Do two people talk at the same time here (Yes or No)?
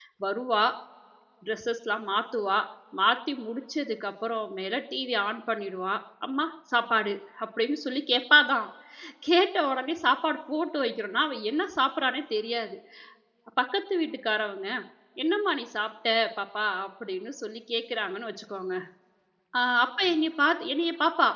No